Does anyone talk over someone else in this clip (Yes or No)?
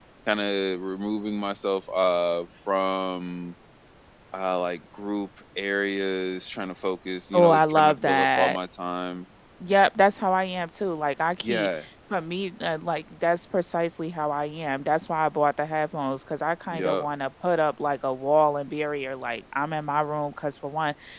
Yes